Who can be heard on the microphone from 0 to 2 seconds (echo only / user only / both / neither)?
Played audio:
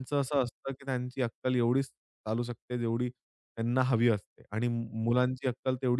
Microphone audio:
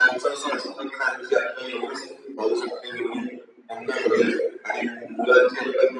echo only